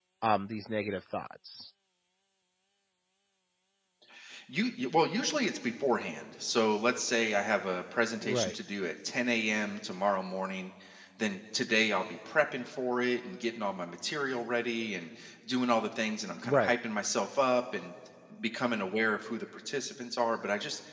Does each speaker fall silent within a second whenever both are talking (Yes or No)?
Yes